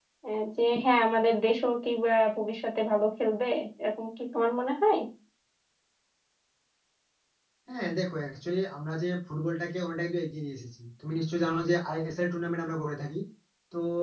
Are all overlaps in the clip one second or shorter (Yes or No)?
Yes